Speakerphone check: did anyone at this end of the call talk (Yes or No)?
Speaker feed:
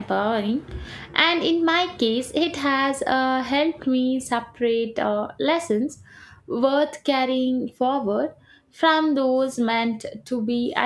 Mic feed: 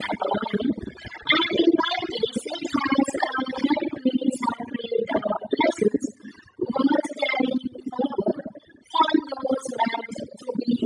No